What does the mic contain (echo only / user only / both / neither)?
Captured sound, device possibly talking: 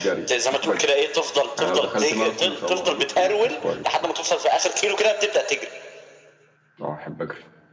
both